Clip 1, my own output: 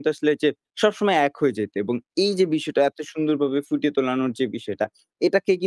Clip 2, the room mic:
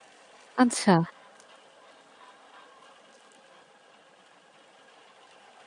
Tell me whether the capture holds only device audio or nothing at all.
No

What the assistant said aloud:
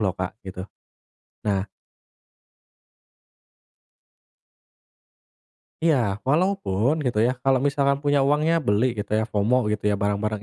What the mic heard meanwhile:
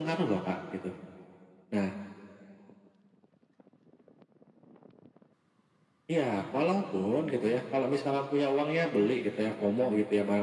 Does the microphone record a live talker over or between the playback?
No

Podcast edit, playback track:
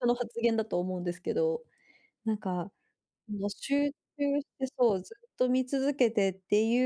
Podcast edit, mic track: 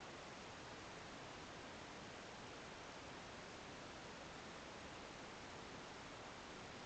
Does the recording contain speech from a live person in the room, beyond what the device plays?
No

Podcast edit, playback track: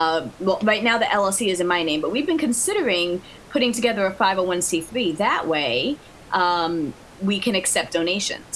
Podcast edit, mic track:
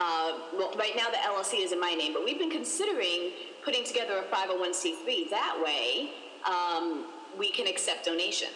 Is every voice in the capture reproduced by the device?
Yes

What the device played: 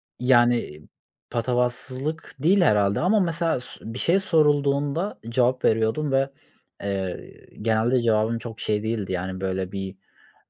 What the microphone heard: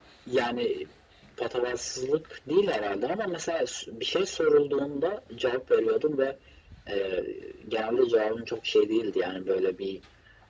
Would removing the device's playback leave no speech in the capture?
Yes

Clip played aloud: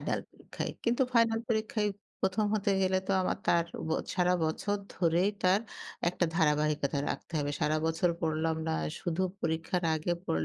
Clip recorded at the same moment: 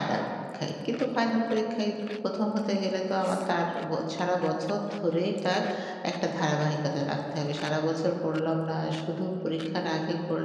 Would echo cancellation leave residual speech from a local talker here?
No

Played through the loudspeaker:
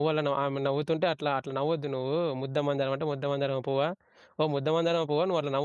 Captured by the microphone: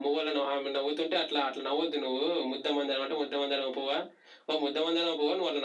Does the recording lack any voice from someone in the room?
Yes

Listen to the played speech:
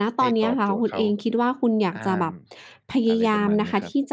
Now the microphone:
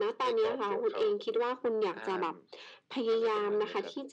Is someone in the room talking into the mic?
No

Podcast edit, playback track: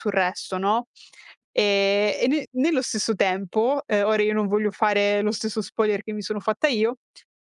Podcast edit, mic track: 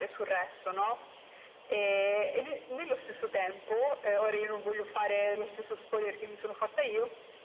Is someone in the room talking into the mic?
No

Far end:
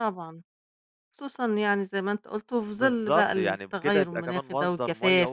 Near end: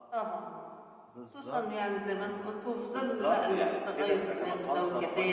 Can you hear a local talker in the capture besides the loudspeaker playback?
Yes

